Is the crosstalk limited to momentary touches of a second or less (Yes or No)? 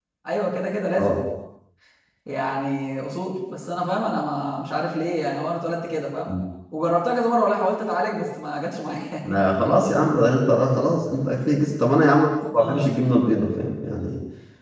Yes